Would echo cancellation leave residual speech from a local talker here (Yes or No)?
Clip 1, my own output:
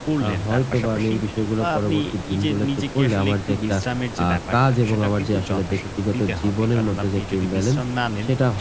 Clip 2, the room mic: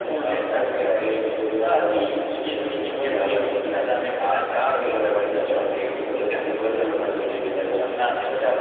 No